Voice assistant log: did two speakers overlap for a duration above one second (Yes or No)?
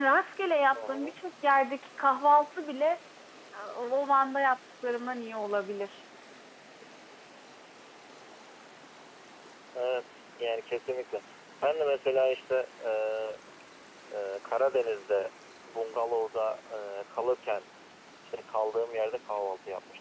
No